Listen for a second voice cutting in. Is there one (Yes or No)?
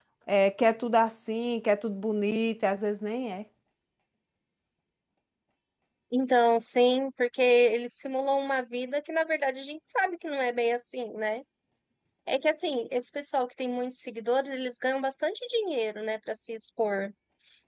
No